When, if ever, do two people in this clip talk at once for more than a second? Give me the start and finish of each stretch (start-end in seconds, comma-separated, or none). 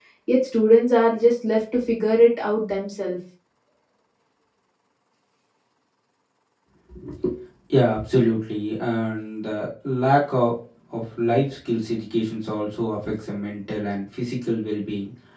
none